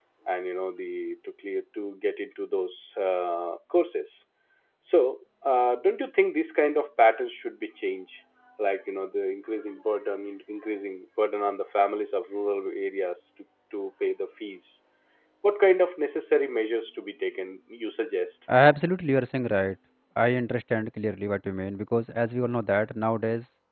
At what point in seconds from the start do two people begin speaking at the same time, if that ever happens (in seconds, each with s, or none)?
none